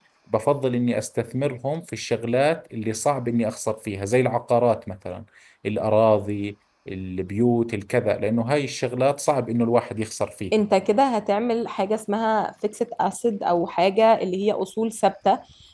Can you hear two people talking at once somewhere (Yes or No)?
No